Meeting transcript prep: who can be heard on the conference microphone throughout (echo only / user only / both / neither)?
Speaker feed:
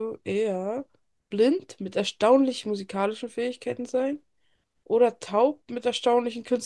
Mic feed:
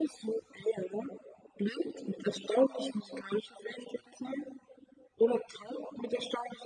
echo only